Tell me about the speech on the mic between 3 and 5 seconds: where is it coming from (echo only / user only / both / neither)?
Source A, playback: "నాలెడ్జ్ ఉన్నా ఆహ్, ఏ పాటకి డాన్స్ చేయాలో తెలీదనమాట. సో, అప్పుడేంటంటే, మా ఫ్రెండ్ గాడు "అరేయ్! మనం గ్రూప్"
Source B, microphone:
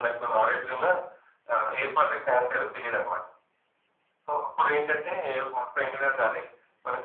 echo only